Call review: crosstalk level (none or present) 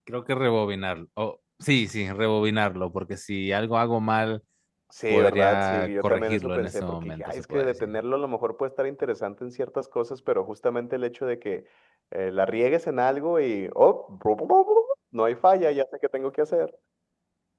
present